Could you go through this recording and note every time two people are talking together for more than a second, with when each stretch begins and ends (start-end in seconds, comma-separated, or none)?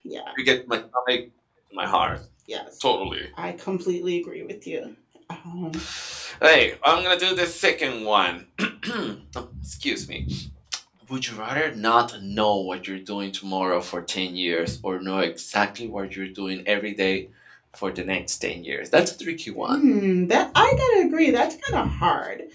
none